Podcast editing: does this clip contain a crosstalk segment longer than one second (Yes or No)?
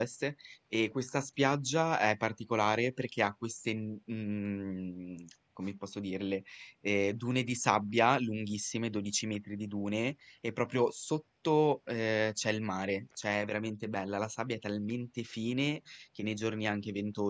No